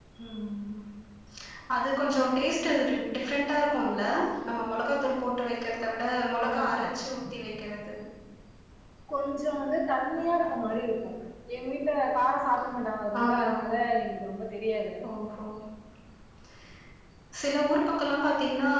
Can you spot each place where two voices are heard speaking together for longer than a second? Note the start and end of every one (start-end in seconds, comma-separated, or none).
none